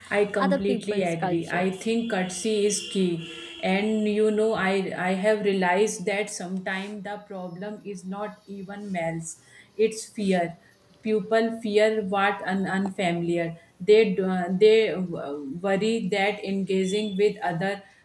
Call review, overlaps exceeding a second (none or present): present